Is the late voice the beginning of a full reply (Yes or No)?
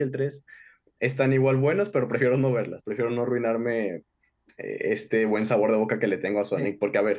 No